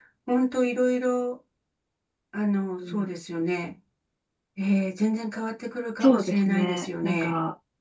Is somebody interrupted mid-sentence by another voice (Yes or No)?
Yes